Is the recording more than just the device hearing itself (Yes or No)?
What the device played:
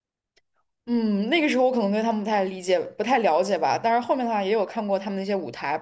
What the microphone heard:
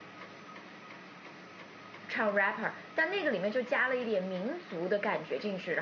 Yes